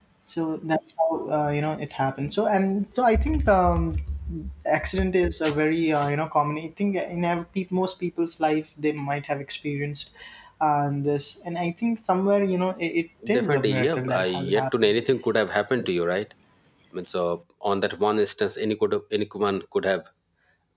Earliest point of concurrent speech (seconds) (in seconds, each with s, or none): 13.2 s